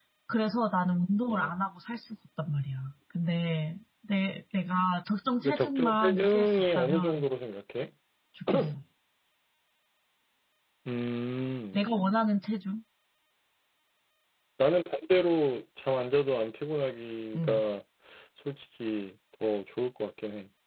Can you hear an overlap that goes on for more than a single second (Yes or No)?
Yes